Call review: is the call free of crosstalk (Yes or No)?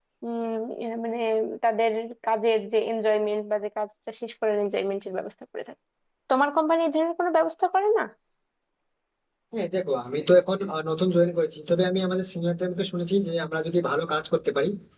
Yes